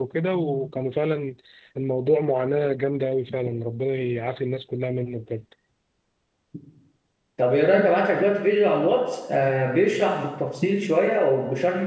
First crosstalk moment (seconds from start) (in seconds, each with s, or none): none